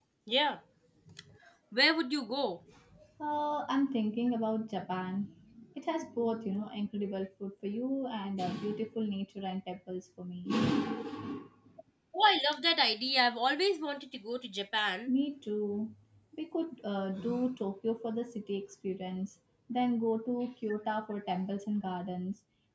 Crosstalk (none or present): none